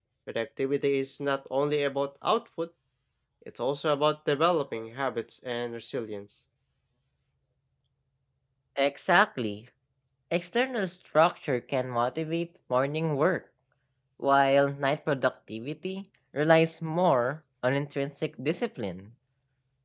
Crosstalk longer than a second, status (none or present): none